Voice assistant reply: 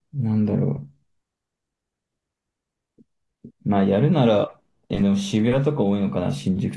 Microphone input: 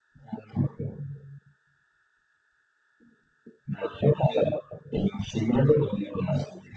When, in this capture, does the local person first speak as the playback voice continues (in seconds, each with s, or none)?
none